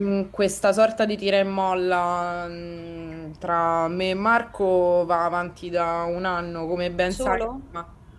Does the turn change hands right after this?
No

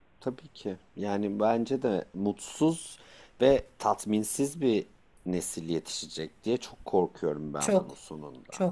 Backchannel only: No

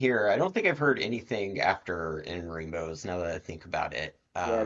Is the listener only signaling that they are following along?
No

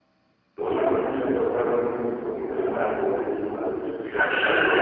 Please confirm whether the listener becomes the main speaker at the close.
Yes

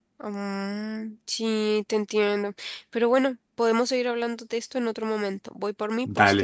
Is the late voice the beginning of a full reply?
Yes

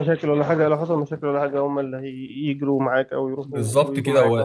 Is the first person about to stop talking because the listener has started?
Yes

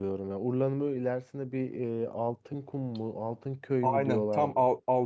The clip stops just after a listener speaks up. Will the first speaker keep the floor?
No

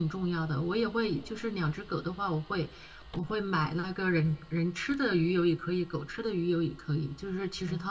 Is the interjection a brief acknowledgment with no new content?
Yes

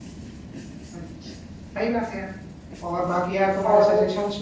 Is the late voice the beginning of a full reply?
No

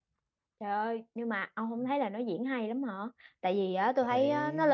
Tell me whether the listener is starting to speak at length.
No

